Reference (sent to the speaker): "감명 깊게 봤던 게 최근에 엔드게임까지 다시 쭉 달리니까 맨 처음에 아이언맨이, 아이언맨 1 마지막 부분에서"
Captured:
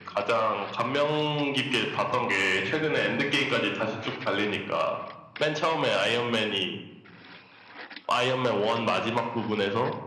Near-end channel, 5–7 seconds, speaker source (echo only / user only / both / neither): echo only